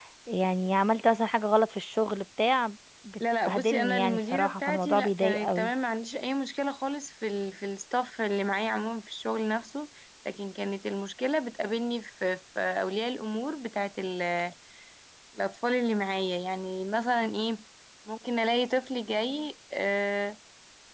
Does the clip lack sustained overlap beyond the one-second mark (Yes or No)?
No